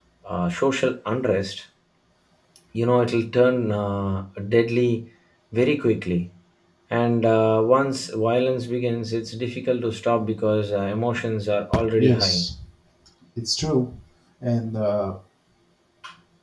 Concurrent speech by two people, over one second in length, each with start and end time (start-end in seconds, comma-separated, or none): none